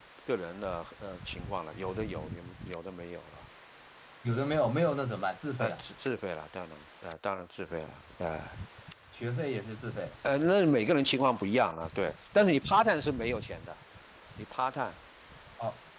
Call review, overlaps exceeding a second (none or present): none